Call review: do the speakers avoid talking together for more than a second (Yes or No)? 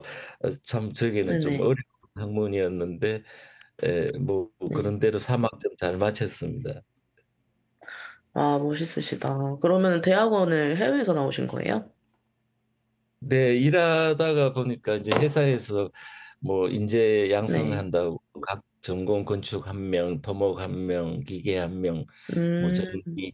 Yes